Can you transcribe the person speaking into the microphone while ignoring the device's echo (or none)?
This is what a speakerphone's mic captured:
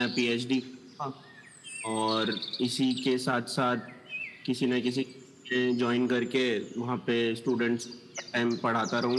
none